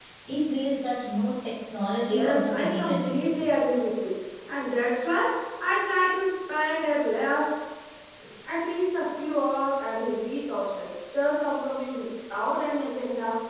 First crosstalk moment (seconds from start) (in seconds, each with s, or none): 2.1 s